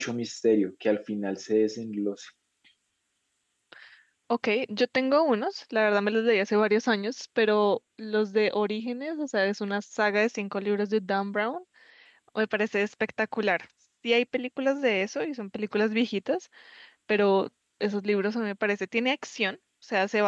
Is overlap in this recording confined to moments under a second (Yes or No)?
Yes